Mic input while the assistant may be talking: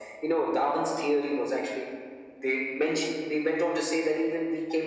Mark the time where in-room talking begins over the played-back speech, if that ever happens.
none

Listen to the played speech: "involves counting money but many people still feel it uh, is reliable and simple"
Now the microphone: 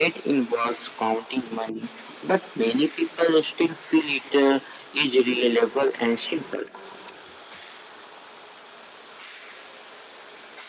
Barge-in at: none

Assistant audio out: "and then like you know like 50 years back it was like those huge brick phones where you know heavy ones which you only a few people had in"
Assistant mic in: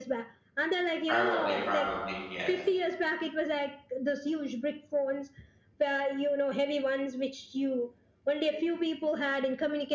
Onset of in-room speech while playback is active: 1.1 s

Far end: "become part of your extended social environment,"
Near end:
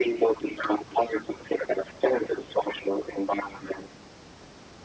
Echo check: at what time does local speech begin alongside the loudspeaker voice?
none

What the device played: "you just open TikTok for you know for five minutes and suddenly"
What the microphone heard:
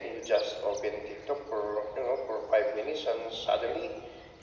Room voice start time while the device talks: none

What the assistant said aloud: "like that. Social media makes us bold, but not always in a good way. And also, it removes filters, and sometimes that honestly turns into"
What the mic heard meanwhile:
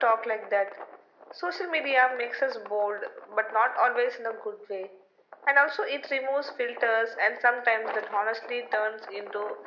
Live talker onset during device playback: none

